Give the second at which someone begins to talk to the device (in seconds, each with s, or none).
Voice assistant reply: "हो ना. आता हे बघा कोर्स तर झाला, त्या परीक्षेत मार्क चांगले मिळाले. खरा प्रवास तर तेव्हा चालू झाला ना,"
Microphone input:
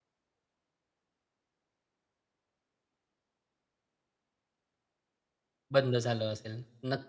5.7 s